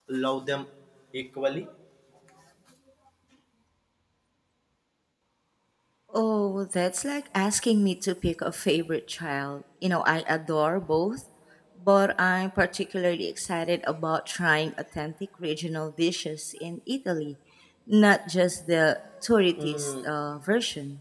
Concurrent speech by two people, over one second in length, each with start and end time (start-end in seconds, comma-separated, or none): none